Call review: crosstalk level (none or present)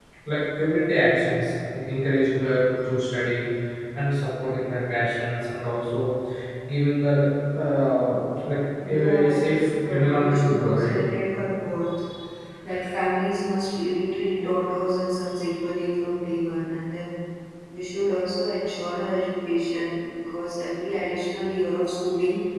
present